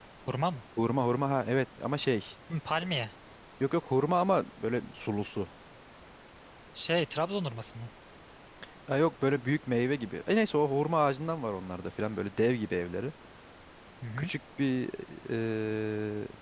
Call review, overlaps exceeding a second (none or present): none